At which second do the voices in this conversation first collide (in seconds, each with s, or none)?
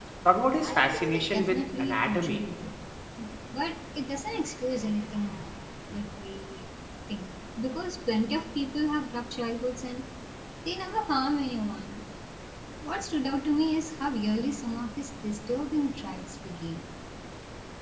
0.6 s